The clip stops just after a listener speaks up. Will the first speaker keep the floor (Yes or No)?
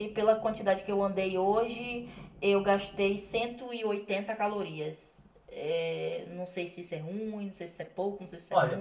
No